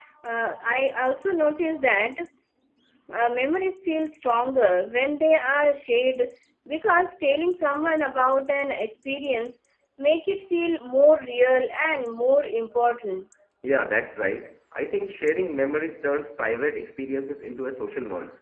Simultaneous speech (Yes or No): No